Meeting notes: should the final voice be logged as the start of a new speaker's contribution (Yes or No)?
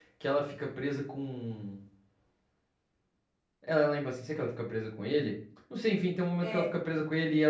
No